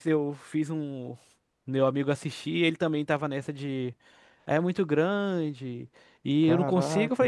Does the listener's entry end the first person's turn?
No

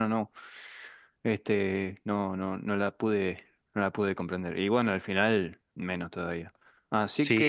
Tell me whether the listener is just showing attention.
No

